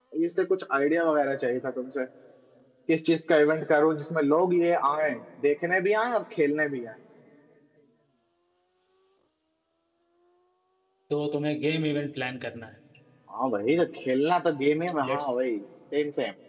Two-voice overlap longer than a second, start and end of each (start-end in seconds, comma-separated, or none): none